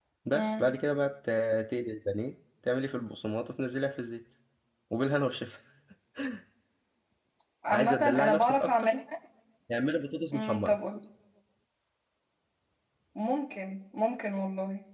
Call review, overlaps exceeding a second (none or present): present